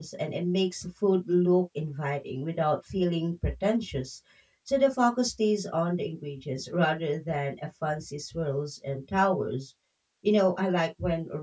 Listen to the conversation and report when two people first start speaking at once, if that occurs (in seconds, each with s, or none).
none